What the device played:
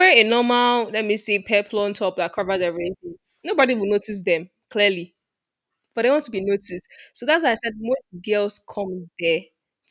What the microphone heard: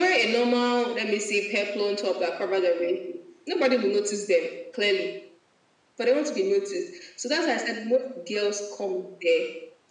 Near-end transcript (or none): none